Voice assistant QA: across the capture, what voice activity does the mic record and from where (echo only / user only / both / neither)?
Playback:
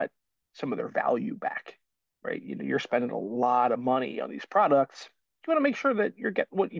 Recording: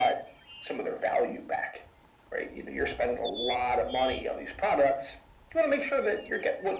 echo only